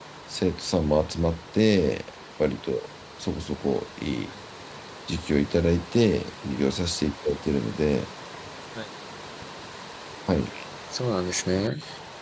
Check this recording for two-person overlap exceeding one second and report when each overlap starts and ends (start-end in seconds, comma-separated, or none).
none